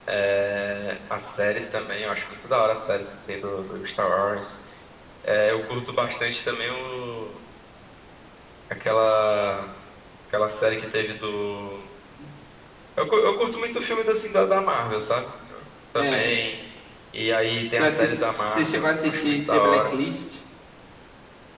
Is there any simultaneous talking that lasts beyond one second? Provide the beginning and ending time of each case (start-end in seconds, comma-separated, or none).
17.8-19.9